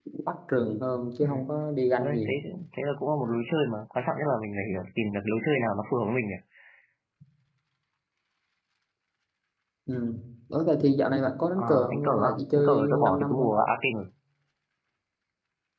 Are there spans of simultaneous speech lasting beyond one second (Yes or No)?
Yes